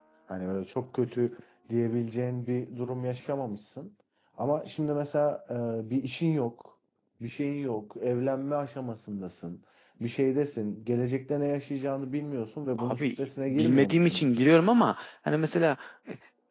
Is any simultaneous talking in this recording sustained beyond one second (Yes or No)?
Yes